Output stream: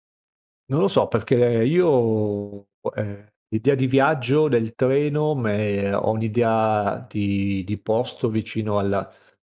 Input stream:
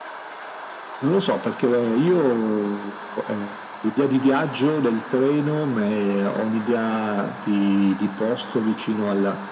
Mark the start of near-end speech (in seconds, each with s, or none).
none